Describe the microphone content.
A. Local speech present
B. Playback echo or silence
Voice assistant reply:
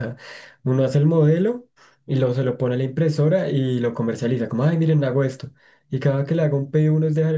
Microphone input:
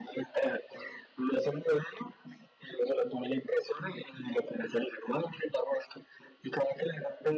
B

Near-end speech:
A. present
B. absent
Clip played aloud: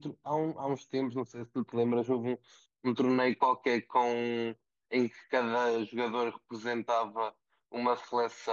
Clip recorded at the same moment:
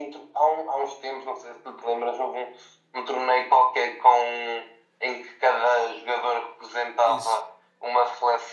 A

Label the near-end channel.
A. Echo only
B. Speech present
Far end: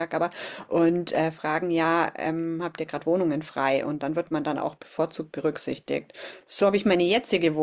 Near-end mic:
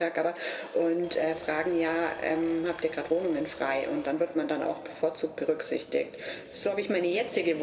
A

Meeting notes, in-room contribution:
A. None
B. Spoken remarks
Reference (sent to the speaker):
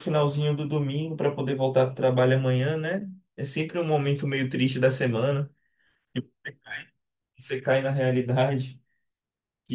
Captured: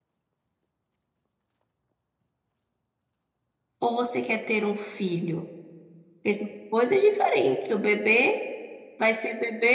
B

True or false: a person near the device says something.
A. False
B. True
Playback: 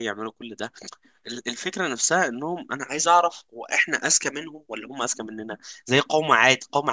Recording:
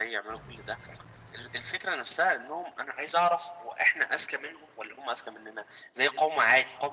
A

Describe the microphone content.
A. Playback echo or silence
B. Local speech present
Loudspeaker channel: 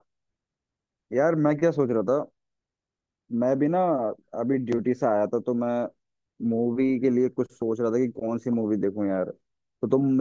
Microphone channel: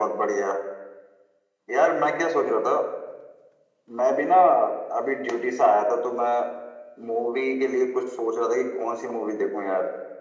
A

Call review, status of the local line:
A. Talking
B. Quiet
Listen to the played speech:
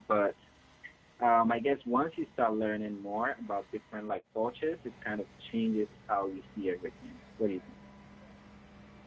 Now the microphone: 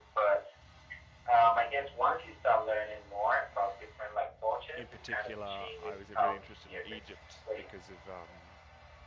A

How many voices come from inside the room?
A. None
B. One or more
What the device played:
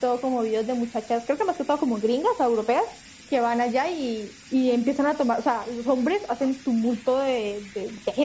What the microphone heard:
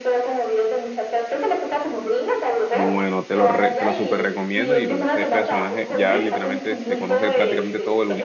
B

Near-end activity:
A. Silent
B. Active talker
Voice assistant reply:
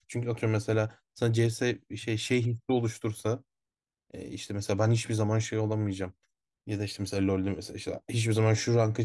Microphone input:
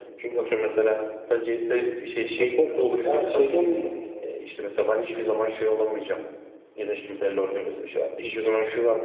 B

